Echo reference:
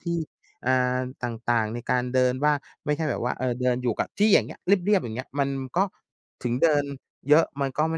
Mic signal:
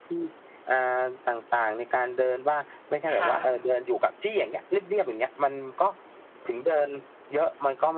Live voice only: ค่ะ

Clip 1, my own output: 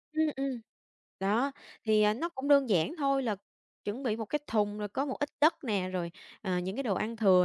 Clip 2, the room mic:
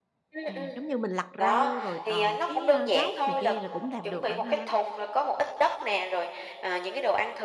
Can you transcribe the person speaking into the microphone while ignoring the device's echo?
À, giống như mình lặt rau rồi còn cái, a, gốc này kia là cũng làm được bạn ha.

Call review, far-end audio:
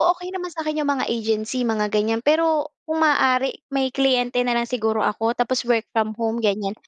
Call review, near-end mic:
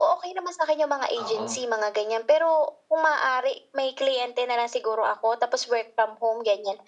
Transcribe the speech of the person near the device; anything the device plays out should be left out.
Oo.

